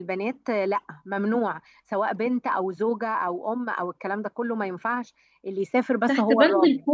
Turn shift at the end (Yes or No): Yes